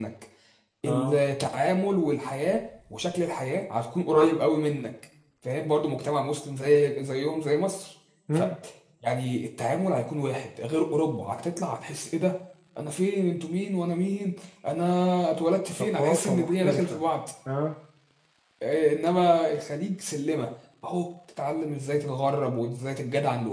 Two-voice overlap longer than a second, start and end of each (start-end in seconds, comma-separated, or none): 15.8-17.0